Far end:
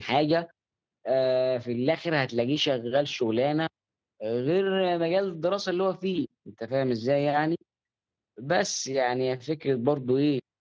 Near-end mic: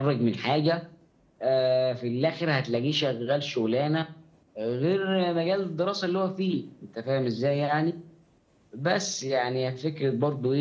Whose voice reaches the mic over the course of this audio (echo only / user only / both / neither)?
echo only